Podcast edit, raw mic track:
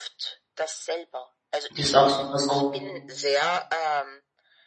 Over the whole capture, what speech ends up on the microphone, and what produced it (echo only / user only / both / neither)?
both